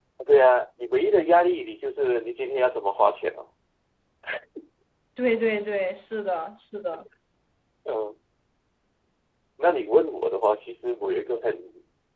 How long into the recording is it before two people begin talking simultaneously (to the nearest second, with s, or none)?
none